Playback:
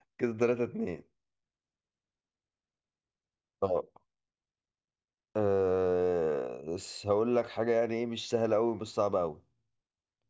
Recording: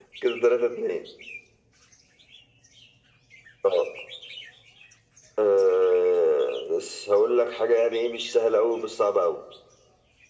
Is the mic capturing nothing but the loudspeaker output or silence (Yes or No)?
Yes